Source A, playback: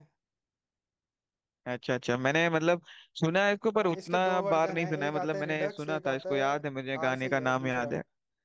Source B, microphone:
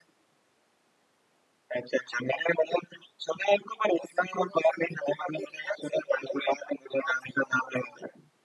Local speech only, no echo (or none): none